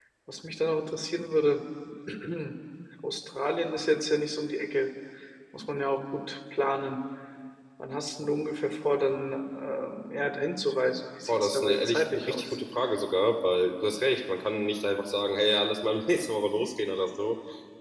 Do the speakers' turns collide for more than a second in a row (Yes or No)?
Yes